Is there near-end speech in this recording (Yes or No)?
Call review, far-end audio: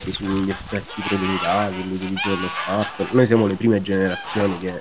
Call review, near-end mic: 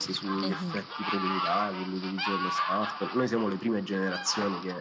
Yes